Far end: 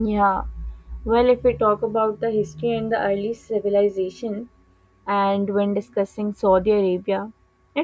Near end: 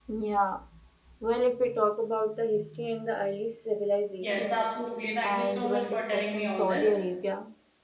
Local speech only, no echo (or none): Yes, absolutely. Thank you so much for telling me all this.